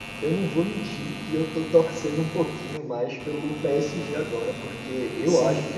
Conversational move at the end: listening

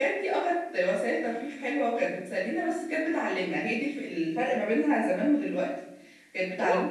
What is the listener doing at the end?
taking over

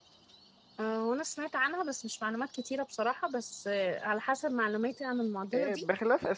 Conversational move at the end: taking over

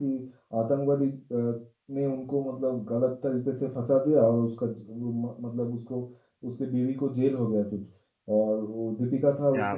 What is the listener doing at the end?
listening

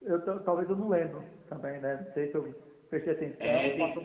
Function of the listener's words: taking over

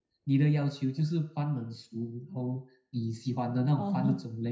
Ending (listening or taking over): listening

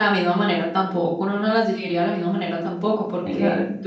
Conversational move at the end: listening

